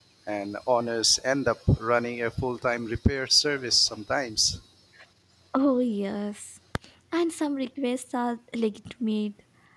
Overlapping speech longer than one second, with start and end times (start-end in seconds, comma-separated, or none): none